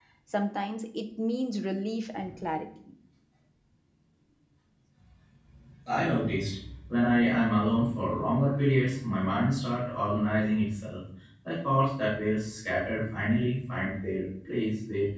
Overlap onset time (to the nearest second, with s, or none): none